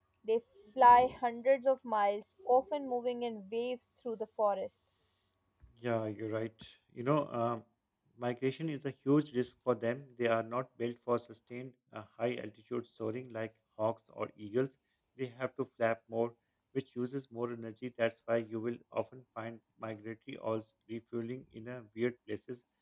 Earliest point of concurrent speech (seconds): none

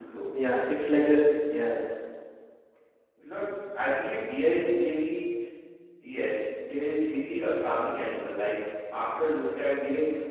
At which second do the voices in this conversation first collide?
none

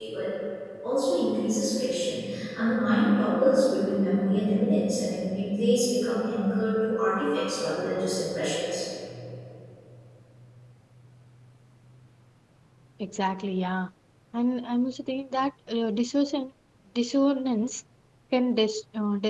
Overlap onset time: none

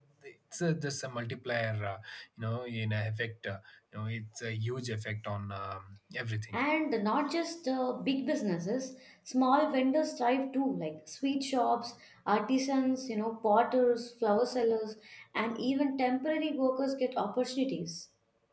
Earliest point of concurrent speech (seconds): none

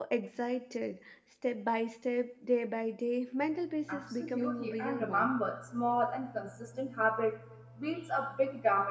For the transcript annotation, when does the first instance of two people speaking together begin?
3.9 s

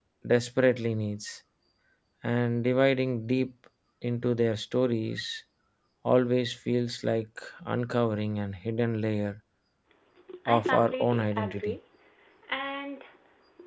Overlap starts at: 10.5 s

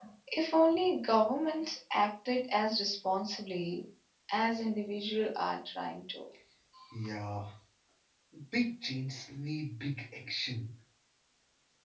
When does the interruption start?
none

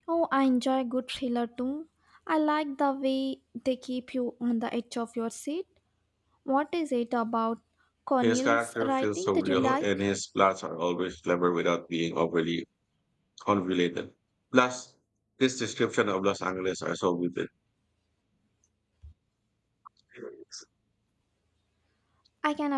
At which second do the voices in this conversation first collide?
8.2 s

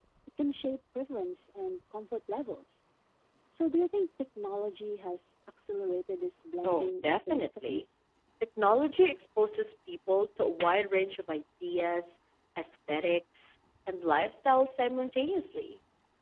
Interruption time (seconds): 6.6 s

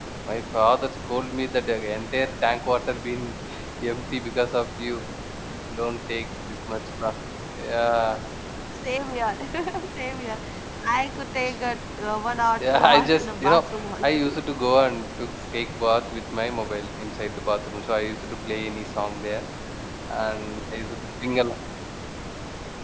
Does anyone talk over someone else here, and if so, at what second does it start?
12.6 s

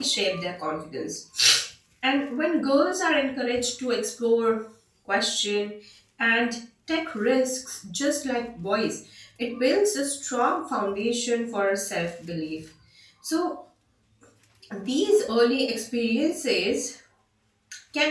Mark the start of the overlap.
none

